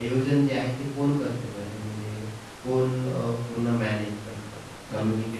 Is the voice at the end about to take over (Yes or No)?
Yes